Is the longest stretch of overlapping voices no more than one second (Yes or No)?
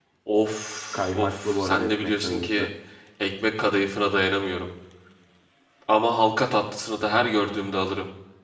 No